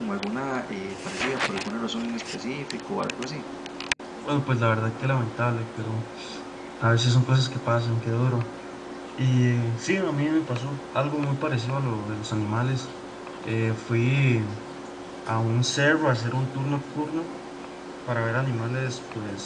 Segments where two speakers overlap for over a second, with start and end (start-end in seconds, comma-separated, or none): none